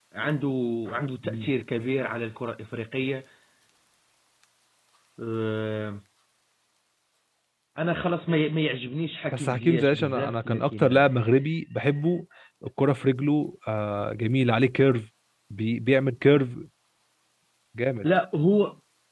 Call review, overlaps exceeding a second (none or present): present